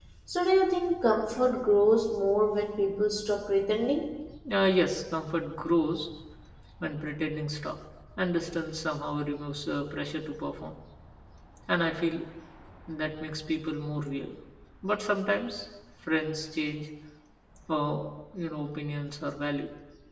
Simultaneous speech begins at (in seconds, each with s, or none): none